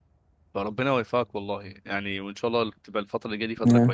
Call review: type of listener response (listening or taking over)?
listening